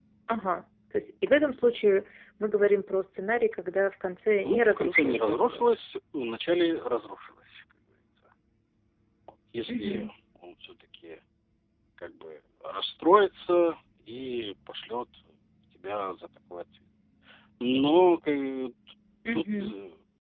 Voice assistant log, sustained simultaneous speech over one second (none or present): present